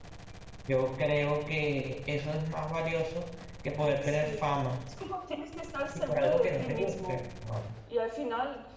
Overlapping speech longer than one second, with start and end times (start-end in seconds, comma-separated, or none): 5.9-7.2